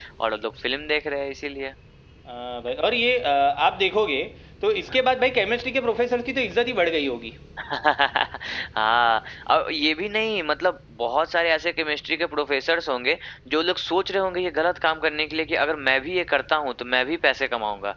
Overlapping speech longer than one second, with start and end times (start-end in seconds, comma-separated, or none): none